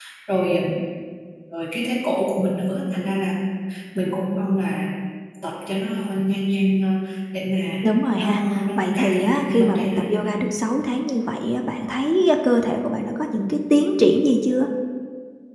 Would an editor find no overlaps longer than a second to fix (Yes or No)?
No